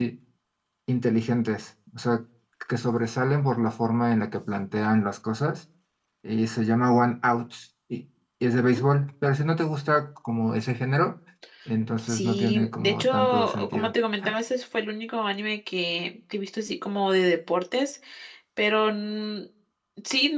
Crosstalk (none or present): present